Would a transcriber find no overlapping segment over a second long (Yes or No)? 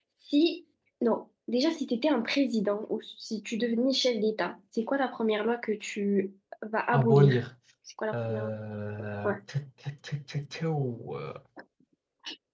Yes